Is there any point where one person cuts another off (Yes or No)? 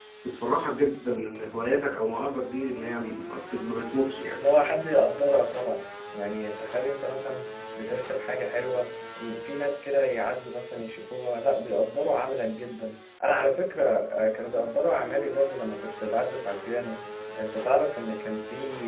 No